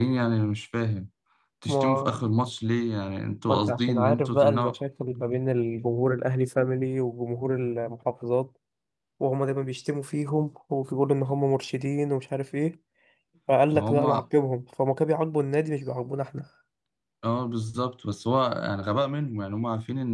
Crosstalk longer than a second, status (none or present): present